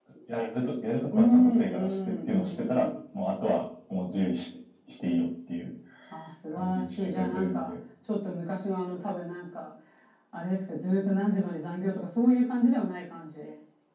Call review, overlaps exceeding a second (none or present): present